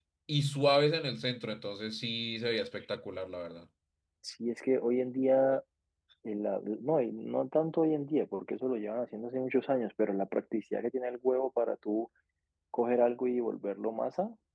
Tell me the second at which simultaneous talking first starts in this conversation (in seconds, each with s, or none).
none